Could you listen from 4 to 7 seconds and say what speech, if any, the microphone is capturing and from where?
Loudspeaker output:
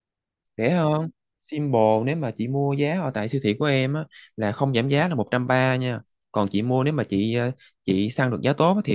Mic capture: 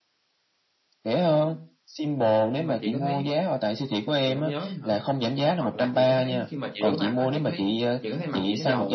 both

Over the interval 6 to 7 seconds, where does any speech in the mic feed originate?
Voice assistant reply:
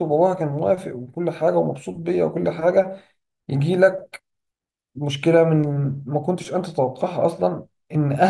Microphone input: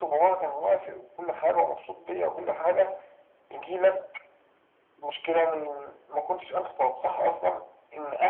echo only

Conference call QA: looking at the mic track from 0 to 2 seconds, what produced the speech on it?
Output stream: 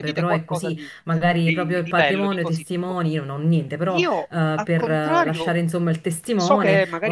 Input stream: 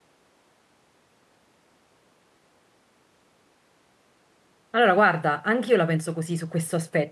neither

